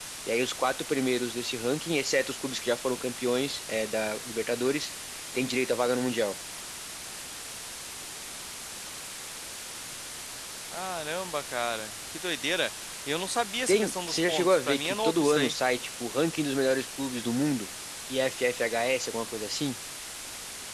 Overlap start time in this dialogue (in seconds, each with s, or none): 13.7 s